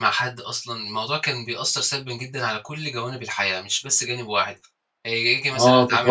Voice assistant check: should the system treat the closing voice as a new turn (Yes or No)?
Yes